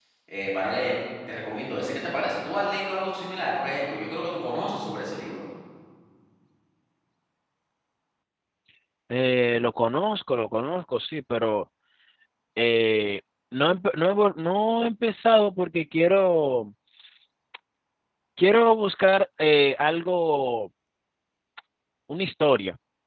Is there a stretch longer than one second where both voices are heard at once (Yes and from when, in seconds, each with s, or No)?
No